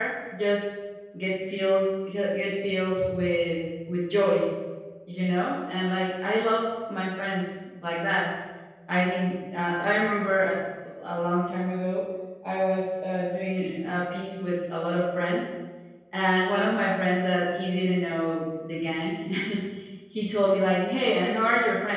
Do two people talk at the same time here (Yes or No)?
No